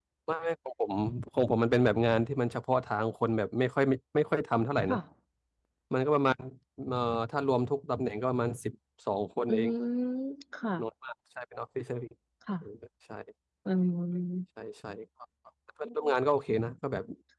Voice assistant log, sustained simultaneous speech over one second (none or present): none